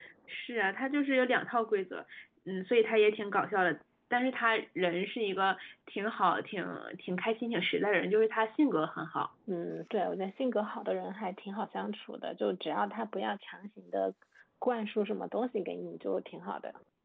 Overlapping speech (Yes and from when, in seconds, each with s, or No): No